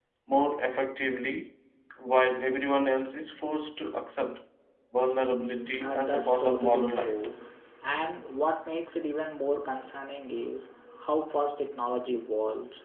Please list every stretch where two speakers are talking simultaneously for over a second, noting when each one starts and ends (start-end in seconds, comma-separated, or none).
5.8-7.1